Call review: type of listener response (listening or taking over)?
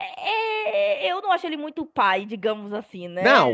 taking over